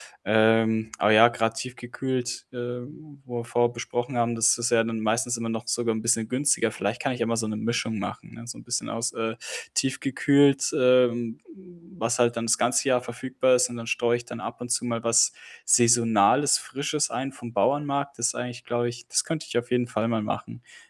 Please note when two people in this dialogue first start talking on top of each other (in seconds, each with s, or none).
none